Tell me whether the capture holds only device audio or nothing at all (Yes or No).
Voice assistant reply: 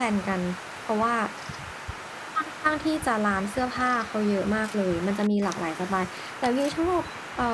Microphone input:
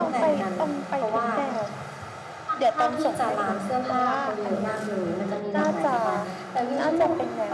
No